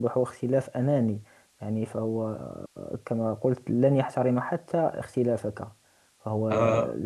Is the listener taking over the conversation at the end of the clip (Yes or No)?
No